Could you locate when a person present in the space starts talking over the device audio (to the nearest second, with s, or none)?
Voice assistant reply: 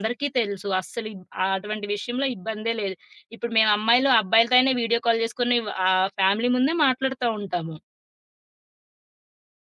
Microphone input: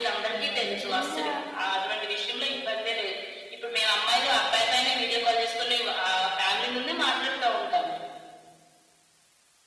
0 s